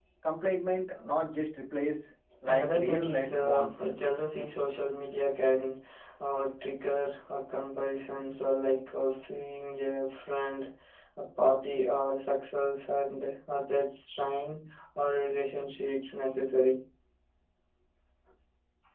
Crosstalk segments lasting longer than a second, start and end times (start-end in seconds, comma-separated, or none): 2.5-3.8